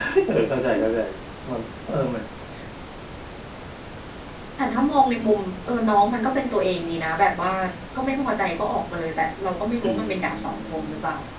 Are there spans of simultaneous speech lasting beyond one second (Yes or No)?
Yes